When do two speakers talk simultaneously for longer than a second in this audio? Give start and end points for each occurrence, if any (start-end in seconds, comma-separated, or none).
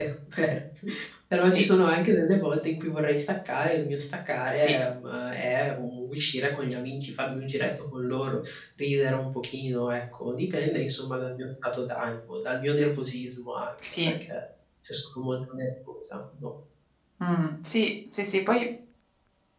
none